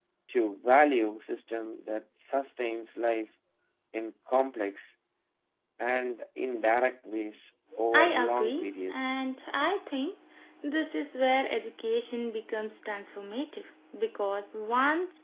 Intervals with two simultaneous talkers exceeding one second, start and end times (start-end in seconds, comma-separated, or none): 7.9-9.2